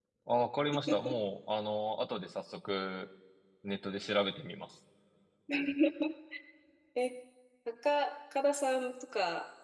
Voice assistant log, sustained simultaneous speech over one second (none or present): none